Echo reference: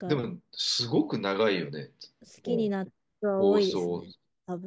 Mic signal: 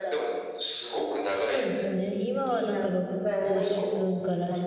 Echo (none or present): present